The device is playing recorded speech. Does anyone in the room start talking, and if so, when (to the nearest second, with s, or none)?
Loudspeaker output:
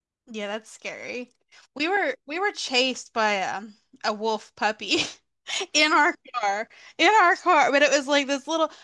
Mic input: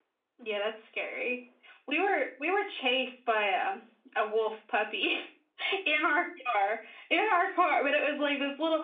none